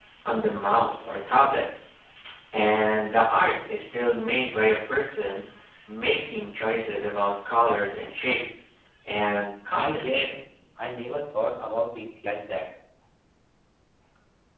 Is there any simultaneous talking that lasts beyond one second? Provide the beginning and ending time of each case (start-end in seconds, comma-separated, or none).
none